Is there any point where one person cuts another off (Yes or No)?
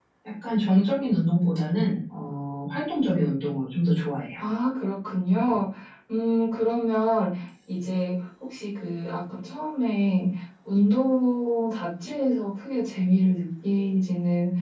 No